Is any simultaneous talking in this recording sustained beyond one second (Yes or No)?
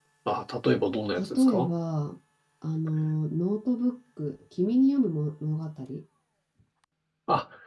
No